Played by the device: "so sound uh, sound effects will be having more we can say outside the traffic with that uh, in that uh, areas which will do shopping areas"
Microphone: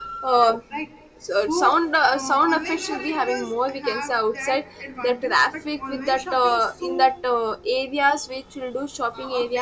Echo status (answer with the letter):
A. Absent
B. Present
B